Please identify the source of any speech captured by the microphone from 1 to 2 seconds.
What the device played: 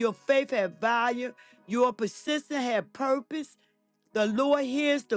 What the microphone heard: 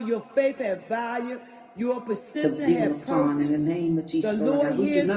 echo only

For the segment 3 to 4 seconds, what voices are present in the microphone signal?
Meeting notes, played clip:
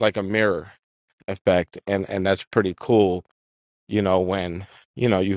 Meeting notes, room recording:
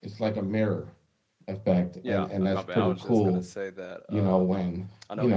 both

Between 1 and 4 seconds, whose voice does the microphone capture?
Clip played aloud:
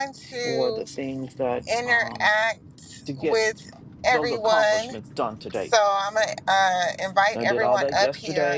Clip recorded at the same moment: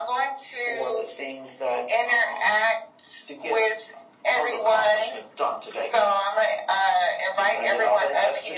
echo only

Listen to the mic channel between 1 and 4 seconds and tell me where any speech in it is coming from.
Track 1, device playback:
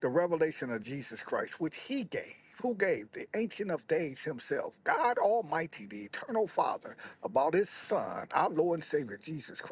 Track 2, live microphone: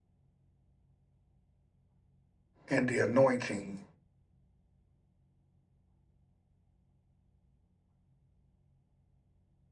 user only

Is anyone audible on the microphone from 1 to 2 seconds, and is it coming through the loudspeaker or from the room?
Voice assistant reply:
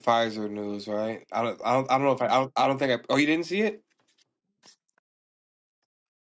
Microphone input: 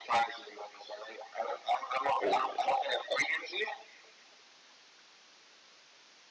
echo only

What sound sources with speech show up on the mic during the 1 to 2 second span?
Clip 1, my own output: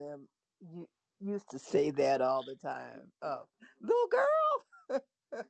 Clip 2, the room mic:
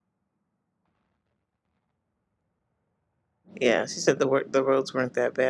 neither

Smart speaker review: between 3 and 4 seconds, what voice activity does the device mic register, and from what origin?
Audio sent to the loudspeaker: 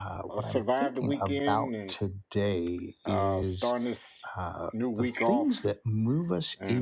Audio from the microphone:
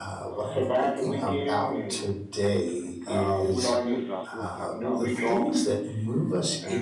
both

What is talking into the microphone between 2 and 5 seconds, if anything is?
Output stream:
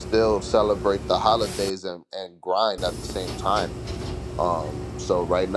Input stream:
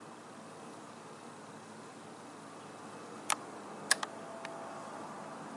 neither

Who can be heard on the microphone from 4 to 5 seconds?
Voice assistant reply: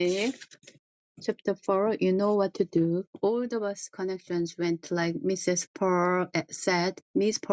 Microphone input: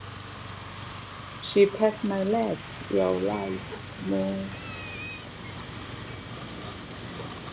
user only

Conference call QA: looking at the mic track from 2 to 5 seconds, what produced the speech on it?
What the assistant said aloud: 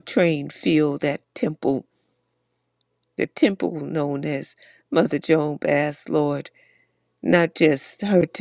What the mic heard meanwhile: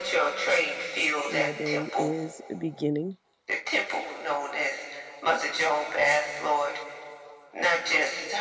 both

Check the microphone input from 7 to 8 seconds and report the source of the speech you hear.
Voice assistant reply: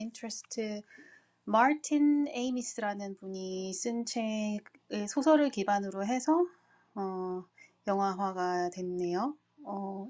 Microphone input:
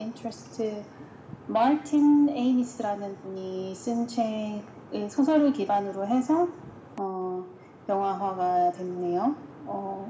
echo only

